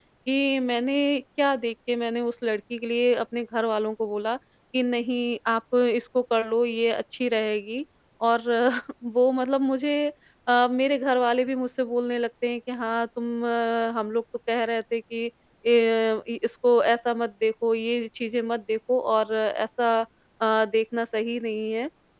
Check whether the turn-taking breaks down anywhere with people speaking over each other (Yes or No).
No